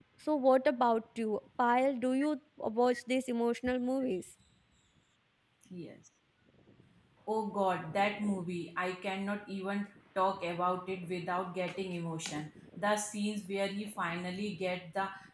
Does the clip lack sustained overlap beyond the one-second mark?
Yes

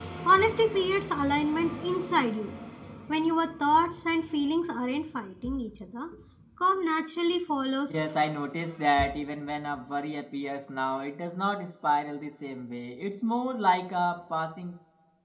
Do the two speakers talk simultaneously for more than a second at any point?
No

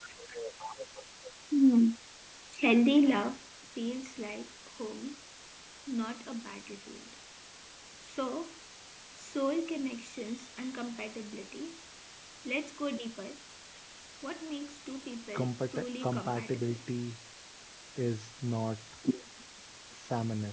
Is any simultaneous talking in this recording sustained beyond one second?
Yes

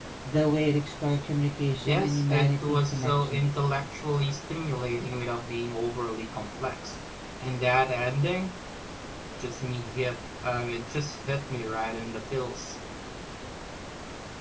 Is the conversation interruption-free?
No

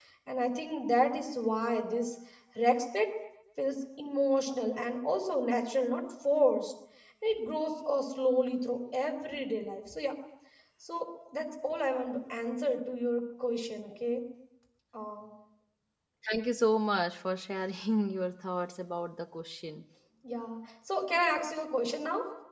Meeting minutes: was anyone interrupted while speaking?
No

